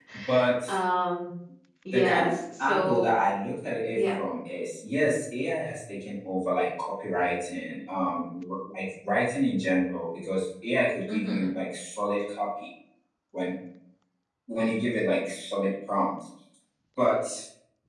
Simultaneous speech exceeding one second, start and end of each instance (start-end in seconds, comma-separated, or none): 1.9-3.1